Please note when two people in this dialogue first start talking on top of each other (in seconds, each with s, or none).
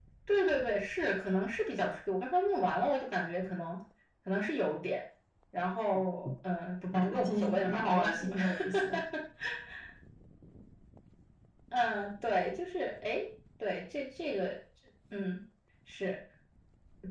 6.9 s